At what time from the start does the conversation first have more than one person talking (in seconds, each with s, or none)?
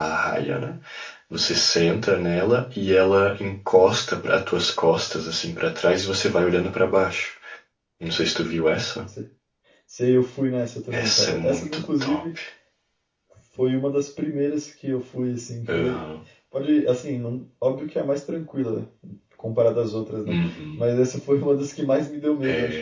10.9 s